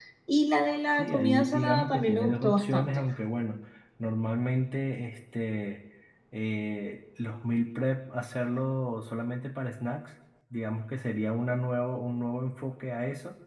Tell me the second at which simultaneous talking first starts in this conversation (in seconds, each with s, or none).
1.0 s